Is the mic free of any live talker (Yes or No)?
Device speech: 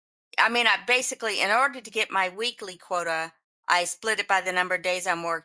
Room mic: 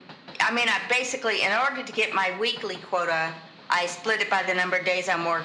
Yes